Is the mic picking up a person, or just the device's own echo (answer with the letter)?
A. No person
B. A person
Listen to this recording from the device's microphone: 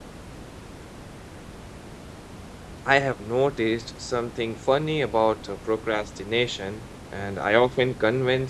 B